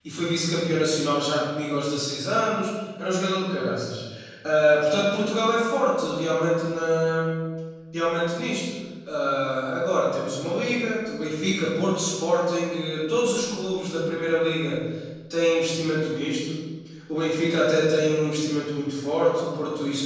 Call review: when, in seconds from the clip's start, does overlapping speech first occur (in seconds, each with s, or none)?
none